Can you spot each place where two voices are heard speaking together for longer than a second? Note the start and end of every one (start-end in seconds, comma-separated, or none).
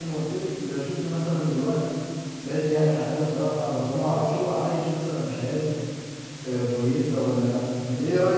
none